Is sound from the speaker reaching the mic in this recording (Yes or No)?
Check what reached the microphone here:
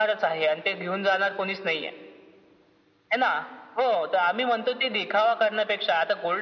Yes